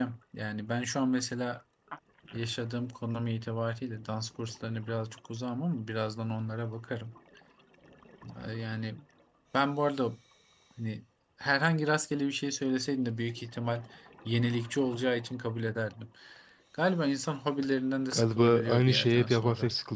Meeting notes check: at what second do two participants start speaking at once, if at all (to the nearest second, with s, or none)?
18 s